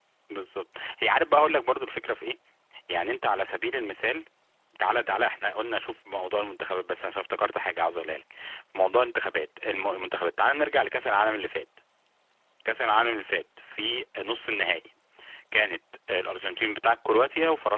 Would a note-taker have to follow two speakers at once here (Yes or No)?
No